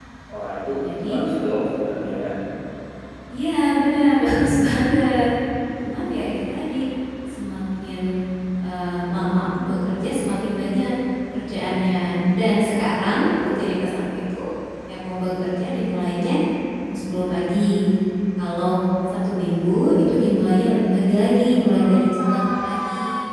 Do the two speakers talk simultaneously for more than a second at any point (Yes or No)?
No